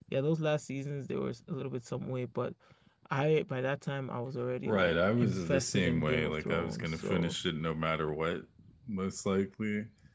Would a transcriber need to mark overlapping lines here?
Yes, from 4.6 s

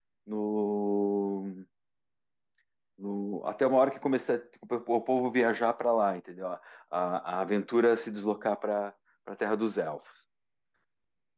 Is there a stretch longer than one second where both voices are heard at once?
No

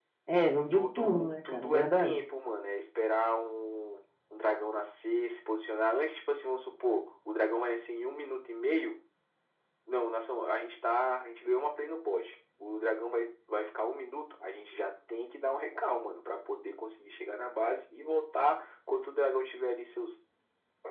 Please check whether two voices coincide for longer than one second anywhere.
Yes, from 0.7 s

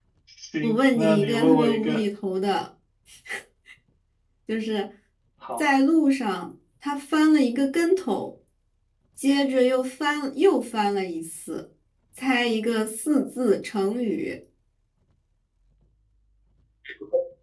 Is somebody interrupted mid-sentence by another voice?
Yes, from 0.6 s

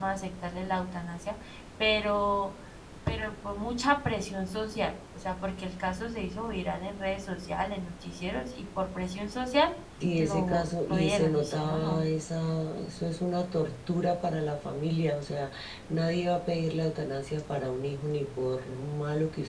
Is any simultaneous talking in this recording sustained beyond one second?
Yes, from 10.2 s

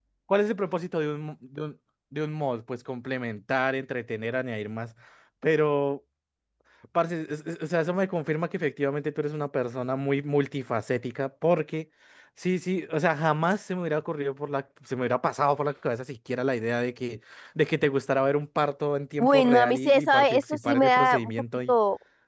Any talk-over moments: Yes, from 19.2 s

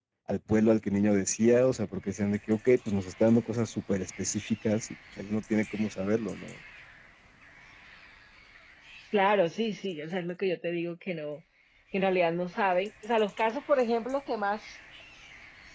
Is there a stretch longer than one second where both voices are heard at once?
No

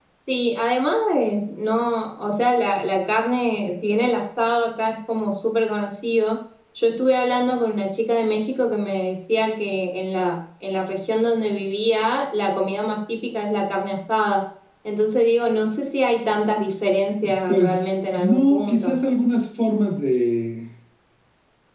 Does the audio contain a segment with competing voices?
Yes, from 17.5 s

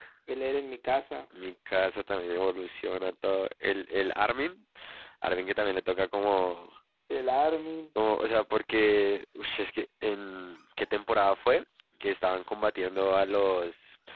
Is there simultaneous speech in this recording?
No

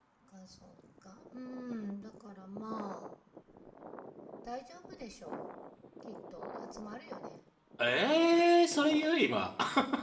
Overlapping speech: No

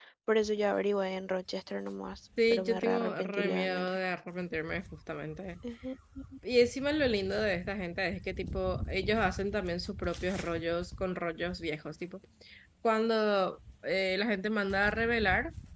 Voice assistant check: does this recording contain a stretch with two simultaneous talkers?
Yes, from 2.4 s

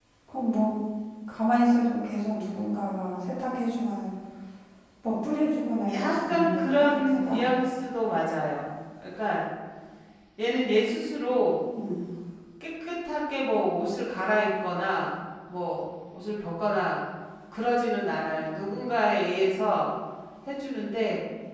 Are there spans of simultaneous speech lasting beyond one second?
Yes, from 5.9 s

